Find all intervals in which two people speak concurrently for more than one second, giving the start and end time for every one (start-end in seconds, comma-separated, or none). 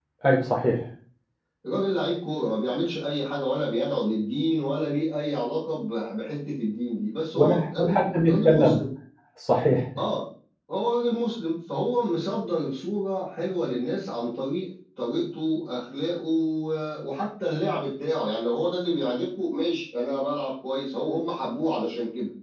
7.3-8.8